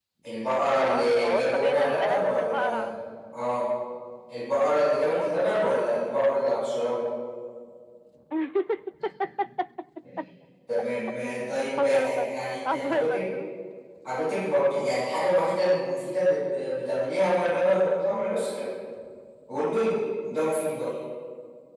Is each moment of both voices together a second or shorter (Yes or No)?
No